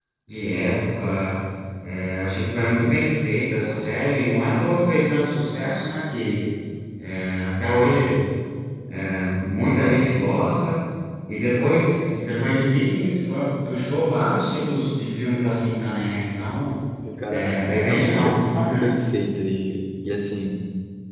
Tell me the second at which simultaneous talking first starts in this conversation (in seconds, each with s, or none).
17.3 s